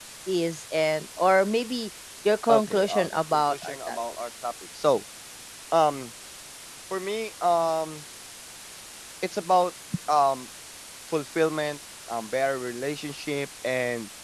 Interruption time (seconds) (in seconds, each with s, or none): 2.5 s